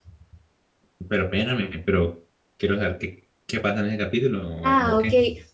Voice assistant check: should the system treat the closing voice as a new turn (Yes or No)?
Yes